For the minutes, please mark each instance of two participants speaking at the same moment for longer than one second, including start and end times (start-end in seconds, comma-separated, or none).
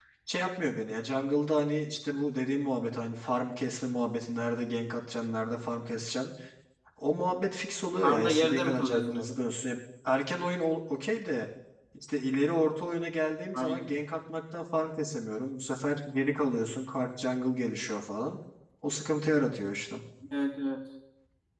8.0-9.3